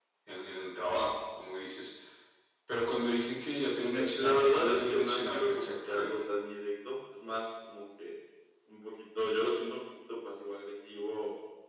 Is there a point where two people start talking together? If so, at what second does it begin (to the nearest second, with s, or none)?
4 s